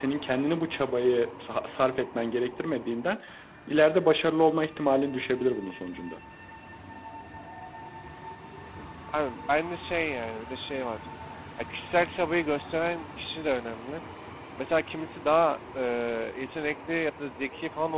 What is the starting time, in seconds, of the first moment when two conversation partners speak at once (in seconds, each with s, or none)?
none